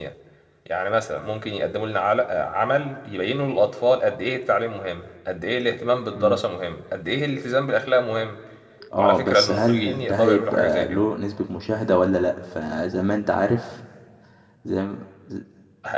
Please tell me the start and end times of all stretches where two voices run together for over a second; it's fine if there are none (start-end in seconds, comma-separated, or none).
9.0-11.0